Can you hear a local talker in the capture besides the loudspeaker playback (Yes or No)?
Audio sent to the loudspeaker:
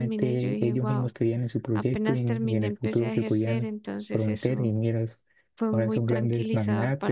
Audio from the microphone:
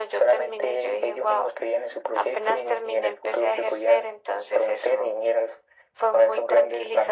No